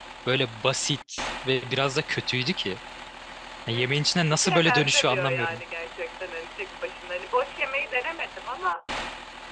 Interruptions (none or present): present